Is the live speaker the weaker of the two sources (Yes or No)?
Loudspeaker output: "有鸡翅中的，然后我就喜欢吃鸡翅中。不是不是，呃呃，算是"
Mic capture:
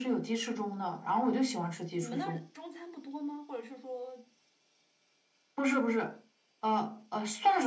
Yes